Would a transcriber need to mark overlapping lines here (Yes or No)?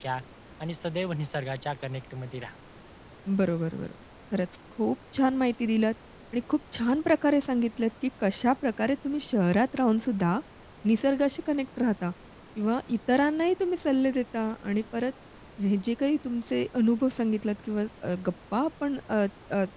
No